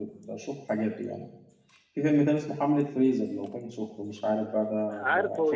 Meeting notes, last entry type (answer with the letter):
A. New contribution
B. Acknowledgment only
A